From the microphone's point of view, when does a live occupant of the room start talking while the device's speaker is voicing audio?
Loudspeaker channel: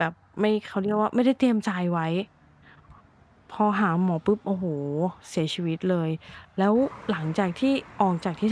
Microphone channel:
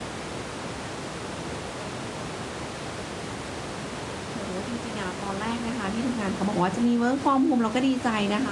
4.3 s

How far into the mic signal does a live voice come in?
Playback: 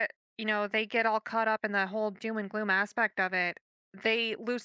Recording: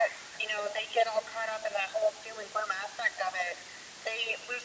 none

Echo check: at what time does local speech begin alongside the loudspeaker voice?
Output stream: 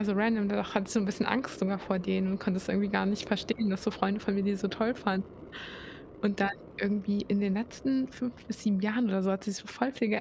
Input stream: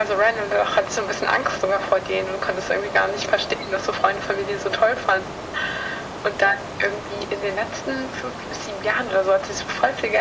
none

